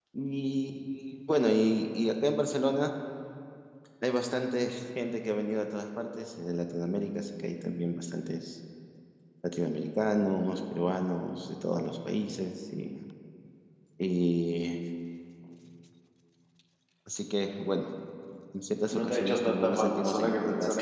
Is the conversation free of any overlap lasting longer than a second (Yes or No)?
No